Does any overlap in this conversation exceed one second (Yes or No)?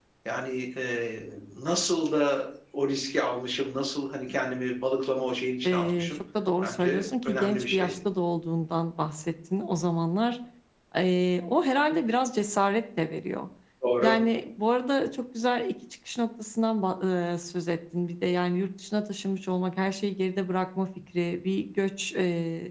Yes